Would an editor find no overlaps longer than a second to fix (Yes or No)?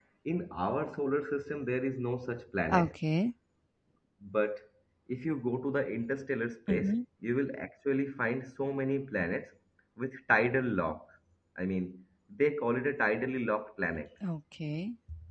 Yes